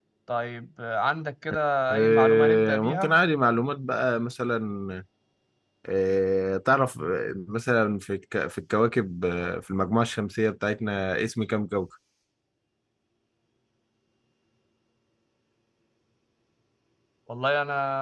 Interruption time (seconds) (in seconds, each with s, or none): 1.9 s